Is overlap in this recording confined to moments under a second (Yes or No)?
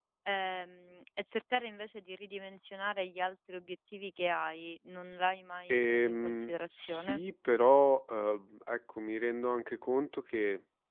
No